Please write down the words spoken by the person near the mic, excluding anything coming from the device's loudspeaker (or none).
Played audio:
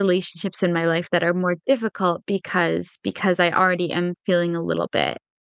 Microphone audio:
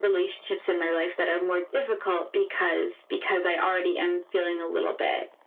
none